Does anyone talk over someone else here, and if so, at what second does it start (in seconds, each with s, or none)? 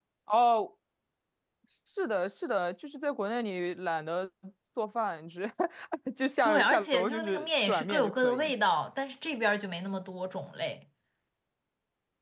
6.4 s